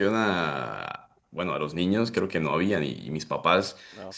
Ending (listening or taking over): listening